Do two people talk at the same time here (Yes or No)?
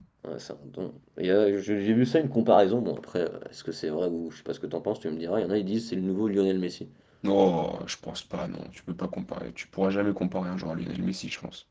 No